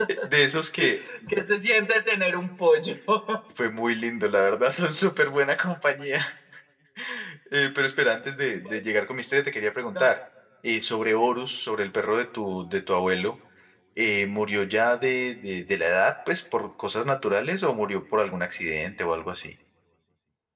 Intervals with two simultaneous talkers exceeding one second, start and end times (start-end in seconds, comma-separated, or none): none